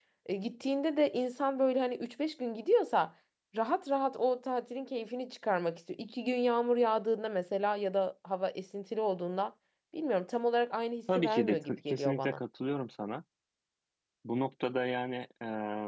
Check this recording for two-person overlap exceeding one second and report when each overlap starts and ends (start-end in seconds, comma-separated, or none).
11.2-12.4